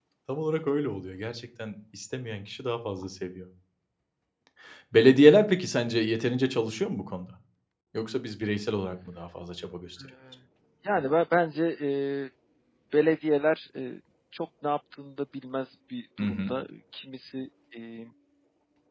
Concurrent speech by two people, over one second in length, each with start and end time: none

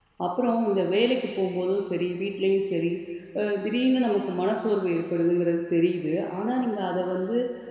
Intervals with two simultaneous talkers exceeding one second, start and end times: none

